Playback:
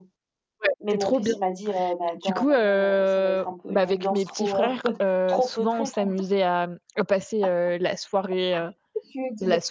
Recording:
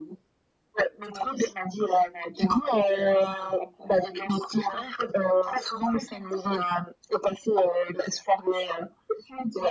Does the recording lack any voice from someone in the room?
Yes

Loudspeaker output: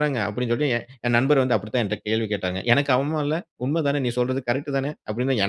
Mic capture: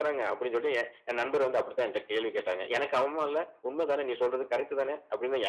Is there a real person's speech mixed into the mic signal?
No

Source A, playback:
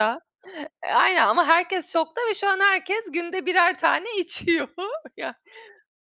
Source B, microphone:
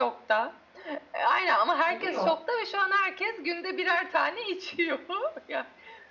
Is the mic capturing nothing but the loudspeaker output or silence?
No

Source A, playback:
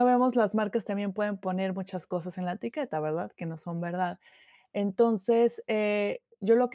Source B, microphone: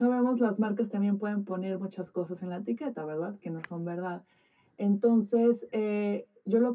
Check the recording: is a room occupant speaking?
No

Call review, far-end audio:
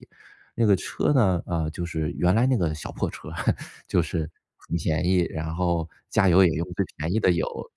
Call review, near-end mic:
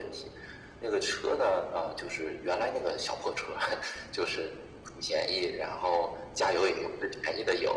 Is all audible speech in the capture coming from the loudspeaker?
Yes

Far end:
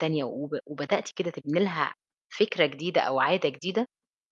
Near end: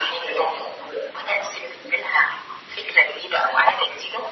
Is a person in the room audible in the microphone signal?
No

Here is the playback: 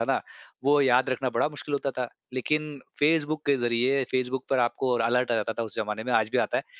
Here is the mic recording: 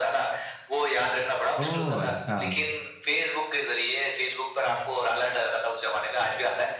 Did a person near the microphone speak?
Yes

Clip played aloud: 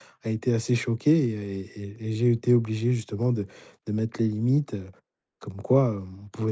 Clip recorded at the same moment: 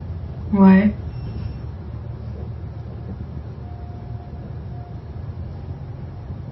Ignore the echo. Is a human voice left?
Yes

